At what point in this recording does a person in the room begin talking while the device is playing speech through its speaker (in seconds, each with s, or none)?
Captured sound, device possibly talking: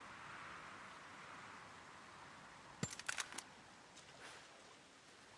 none